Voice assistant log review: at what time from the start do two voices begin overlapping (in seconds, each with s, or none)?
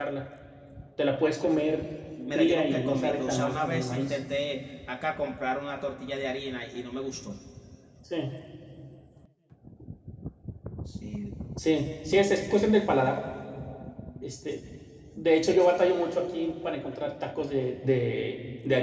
2.3 s